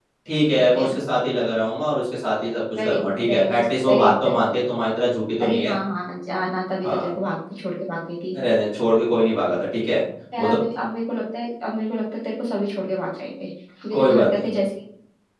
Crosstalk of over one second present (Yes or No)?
Yes